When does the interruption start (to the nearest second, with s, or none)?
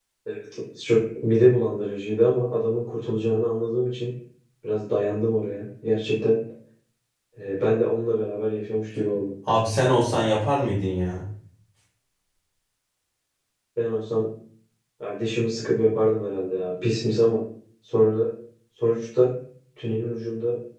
none